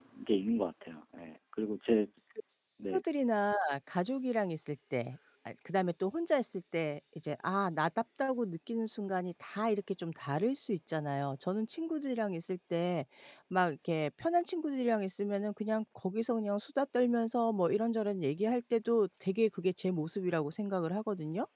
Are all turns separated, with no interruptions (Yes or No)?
Yes